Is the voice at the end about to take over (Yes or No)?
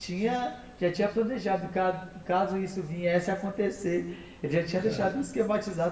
No